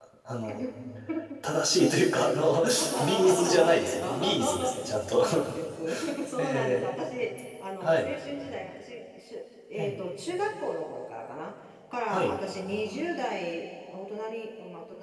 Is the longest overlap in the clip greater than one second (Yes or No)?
Yes